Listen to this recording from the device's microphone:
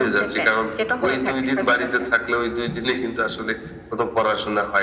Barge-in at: none

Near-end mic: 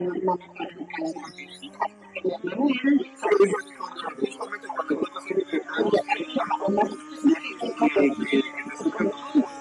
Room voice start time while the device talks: none

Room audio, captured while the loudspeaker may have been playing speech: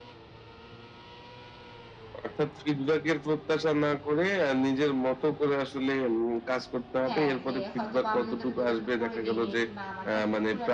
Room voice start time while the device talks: 7.0 s

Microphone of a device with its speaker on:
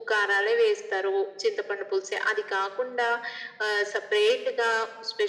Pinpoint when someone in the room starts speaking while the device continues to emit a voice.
none

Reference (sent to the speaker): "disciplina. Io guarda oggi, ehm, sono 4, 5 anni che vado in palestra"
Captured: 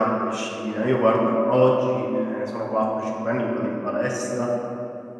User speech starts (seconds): none

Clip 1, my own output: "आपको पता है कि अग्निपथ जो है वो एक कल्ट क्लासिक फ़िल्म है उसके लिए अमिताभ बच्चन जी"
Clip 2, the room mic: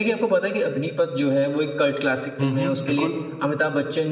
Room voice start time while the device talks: 2.4 s

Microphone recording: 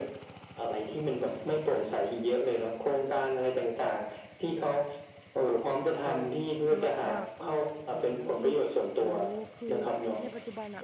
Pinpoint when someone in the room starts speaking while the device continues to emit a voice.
6.0 s

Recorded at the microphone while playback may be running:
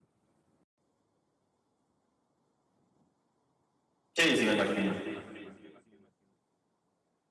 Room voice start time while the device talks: 4.2 s

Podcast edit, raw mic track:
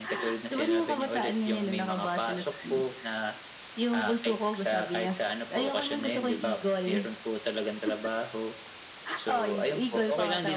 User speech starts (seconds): none

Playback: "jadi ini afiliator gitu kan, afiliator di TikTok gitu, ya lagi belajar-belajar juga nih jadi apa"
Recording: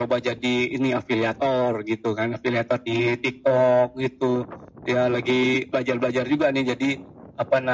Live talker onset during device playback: none

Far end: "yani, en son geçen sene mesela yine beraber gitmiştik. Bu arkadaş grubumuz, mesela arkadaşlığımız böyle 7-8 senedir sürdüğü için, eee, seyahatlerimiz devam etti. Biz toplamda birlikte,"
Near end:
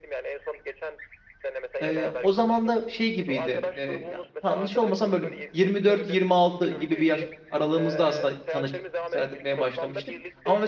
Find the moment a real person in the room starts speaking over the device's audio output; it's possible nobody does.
1.8 s

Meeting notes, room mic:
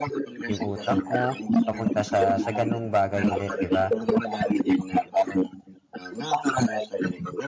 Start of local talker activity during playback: 0.5 s

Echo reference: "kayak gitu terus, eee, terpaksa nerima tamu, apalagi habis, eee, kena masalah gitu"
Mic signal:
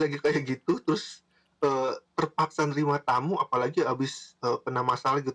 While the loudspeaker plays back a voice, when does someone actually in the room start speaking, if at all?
none

